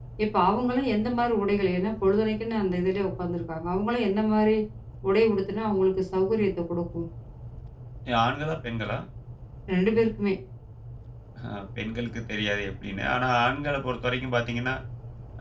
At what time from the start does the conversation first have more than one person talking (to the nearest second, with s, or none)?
none